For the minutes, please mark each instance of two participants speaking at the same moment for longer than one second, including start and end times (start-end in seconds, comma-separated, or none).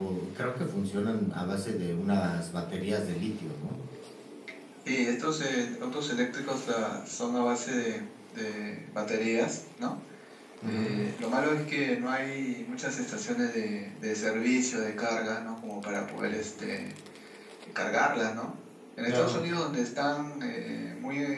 none